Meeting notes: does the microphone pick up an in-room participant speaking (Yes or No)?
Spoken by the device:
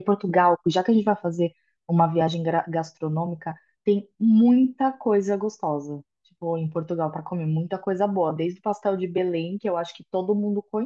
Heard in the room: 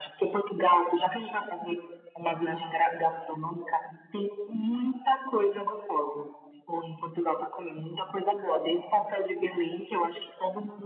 No